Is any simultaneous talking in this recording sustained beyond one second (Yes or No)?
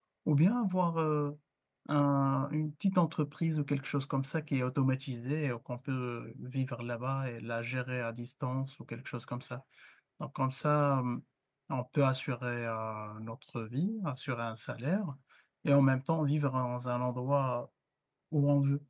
No